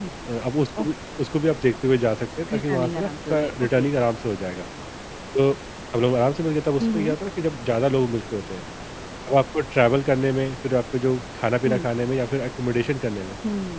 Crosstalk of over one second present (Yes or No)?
Yes